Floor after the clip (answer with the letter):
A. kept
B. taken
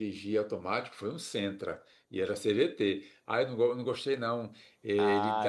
B